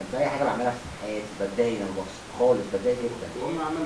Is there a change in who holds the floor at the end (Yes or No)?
Yes